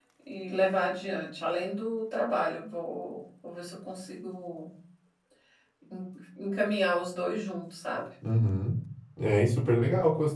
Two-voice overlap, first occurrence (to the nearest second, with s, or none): none